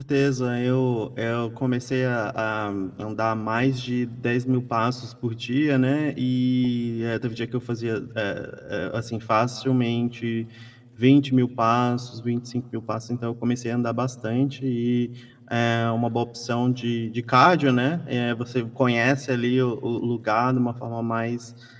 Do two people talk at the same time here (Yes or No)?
No